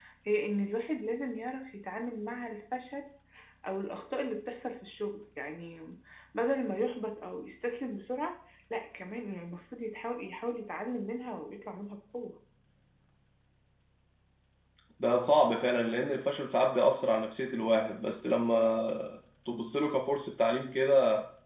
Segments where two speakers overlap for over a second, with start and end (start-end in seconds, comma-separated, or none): none